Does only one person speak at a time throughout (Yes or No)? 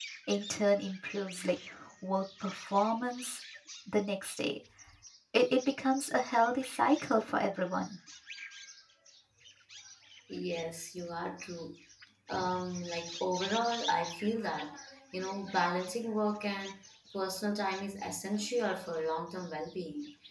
Yes